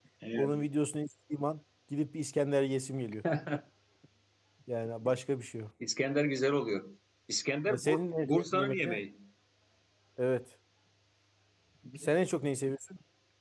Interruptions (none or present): present